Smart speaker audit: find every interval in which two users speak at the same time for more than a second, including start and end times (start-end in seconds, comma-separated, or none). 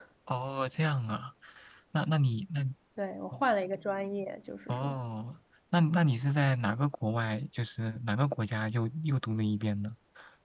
none